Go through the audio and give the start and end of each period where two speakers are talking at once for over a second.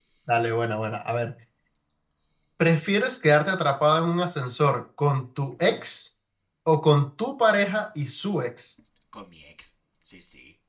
none

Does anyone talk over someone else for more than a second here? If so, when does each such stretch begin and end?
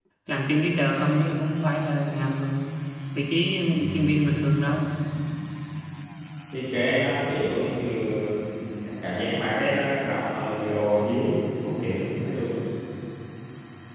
none

